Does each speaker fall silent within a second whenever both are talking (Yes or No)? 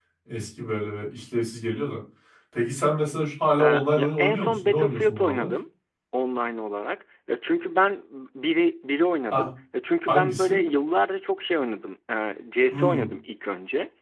No